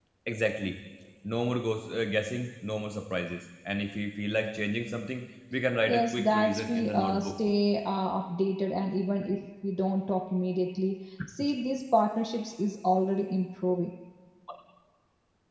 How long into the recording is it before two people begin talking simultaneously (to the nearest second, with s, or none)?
6 s